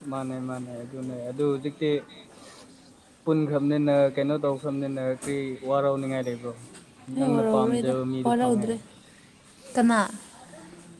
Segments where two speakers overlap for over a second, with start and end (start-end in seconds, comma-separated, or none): 7.2-8.7